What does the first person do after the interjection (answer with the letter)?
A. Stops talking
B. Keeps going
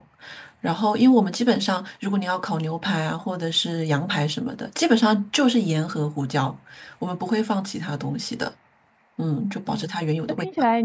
A